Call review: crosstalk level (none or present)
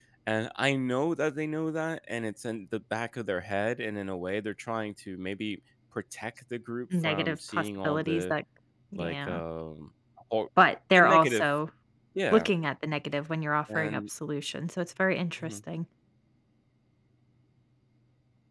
present